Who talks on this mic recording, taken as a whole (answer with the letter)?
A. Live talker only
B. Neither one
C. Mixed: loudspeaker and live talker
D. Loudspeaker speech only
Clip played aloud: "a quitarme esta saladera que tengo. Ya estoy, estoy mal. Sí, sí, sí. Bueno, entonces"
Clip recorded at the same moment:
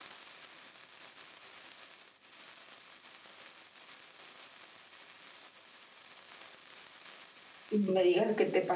A